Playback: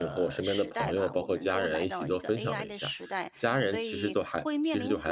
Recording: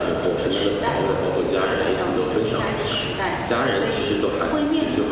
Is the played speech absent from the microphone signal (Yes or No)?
No